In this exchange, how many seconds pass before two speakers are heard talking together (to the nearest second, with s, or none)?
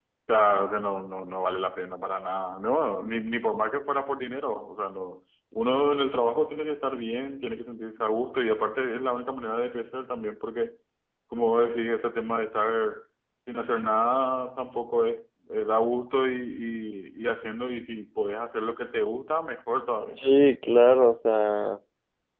none